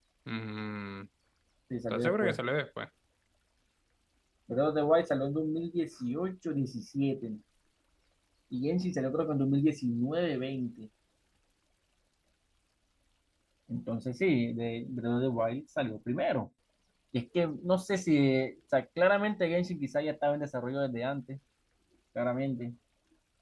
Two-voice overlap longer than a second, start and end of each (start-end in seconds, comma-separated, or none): none